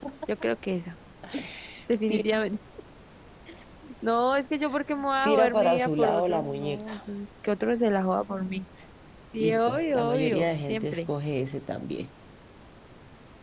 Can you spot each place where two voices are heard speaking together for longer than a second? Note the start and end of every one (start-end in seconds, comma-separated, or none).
5.2-7.0, 9.4-11.0